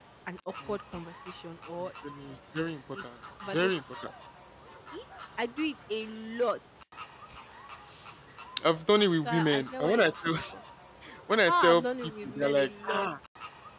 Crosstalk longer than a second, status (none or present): present